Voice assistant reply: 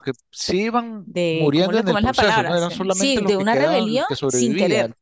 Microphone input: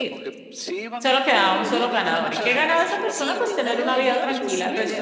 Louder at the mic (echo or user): user